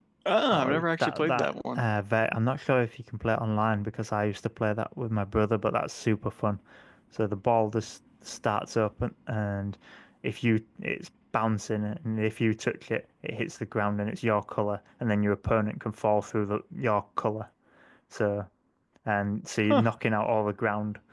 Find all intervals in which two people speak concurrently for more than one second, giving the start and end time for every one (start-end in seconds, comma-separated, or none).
0.5-1.8